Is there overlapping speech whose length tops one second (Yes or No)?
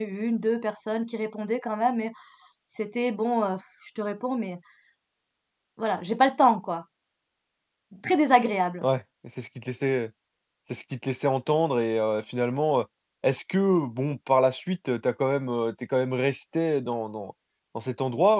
No